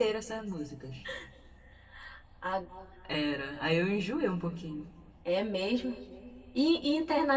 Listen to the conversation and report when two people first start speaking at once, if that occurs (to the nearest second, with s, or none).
none